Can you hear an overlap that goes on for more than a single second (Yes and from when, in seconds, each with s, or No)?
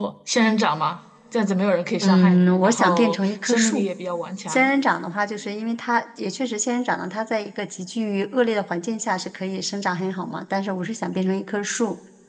Yes, from 2.0 s